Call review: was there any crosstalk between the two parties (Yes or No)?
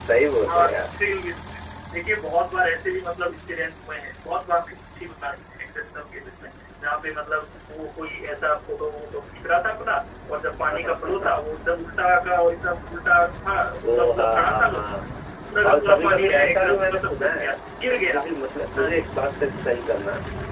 Yes